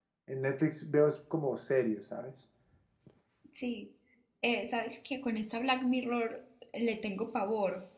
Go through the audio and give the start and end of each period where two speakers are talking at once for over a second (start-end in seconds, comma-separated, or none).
none